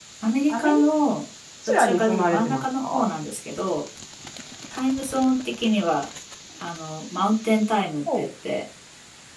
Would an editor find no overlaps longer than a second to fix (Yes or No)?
No